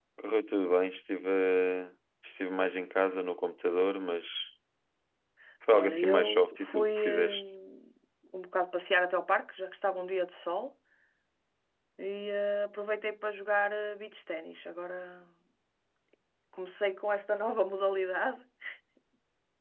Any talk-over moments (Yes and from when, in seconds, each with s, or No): Yes, from 5.7 s